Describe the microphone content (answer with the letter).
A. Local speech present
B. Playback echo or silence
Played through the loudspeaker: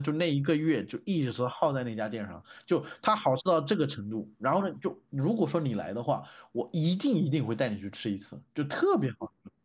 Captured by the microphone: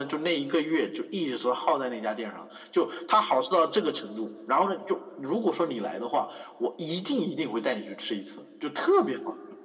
B